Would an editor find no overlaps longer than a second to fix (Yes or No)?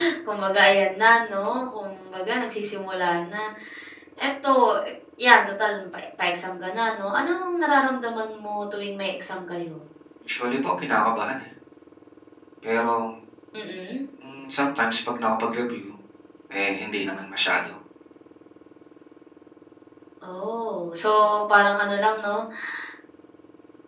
Yes